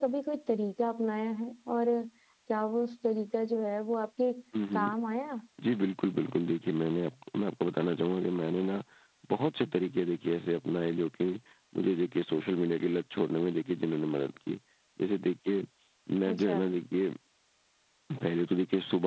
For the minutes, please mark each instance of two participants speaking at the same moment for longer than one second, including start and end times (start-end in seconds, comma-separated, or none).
none